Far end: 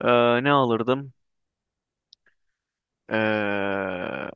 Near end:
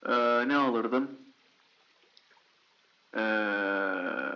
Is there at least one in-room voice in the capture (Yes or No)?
No